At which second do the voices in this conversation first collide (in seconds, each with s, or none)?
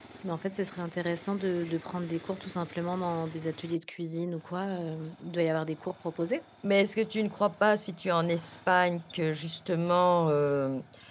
none